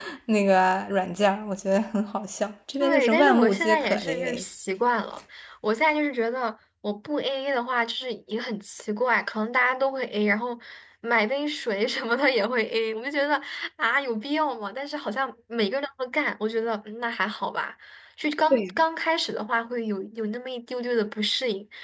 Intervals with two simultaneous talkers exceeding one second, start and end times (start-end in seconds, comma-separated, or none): 2.8-4.4